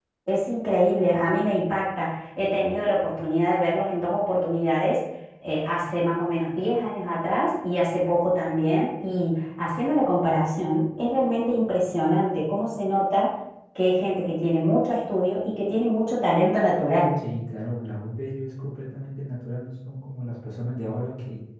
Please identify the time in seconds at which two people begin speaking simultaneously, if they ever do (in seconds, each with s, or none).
none